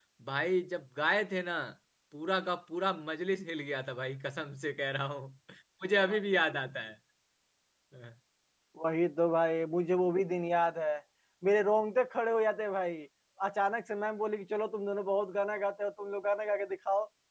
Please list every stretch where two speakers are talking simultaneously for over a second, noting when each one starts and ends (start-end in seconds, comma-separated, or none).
none